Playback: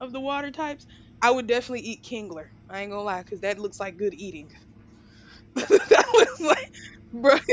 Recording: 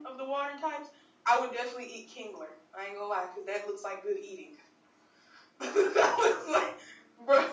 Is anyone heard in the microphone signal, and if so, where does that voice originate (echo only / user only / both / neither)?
echo only